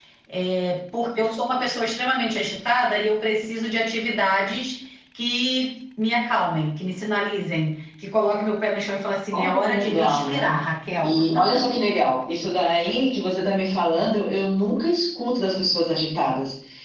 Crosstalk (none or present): present